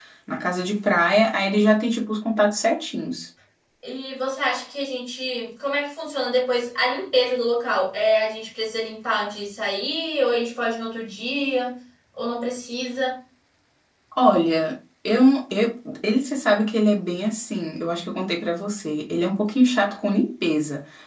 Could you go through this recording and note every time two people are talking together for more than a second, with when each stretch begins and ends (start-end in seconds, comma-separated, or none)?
none